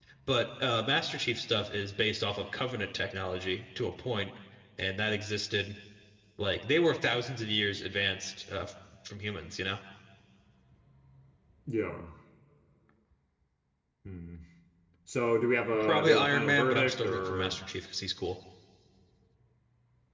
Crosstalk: present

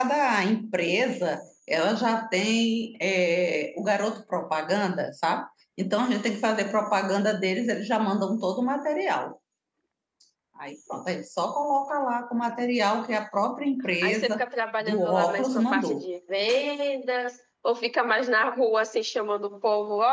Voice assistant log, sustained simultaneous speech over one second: present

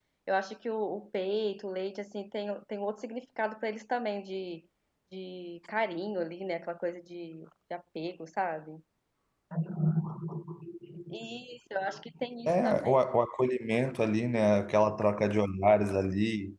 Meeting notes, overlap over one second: none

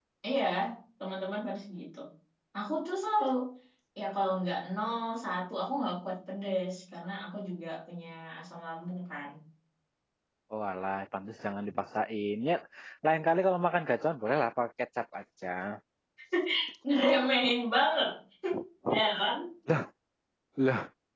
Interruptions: none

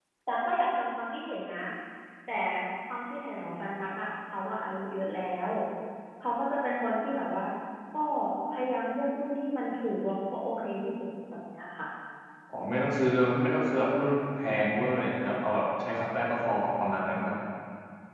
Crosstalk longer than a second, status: none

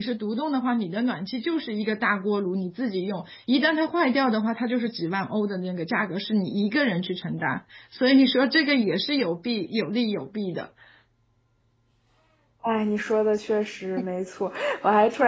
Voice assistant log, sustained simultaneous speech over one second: none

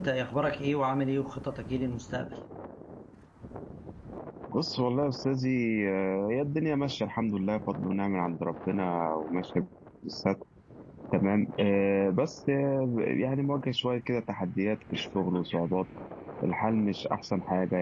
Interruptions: none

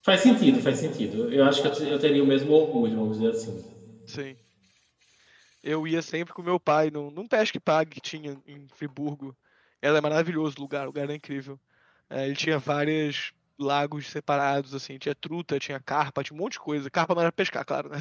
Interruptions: none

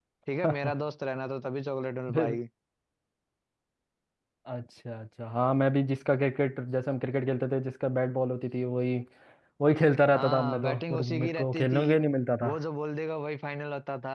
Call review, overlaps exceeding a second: present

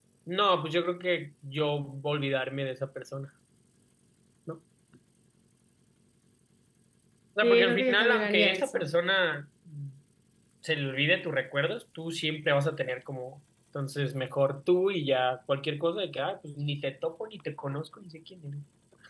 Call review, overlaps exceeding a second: present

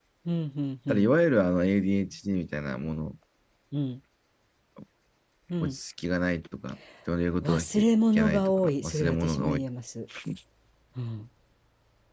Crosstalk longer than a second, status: present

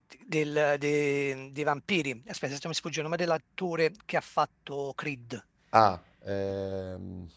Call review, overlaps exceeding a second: none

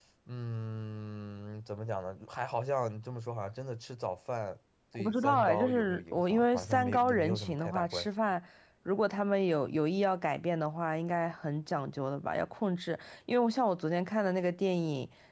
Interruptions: present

